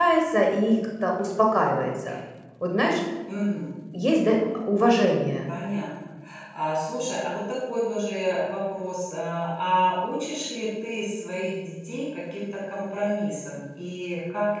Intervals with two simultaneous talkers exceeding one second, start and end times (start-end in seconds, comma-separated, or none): none